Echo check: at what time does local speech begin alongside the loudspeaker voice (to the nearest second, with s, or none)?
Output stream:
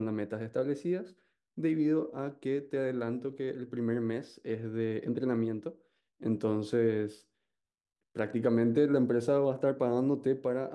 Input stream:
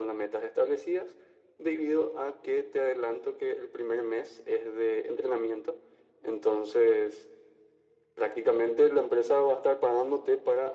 none